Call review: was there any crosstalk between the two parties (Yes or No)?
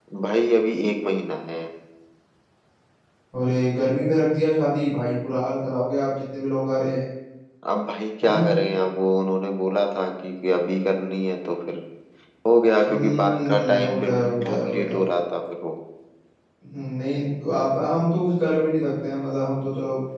Yes